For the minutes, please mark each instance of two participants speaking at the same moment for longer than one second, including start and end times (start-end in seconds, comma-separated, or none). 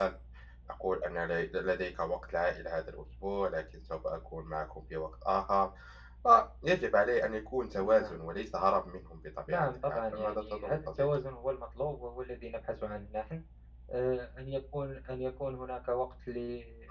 9.5-11.1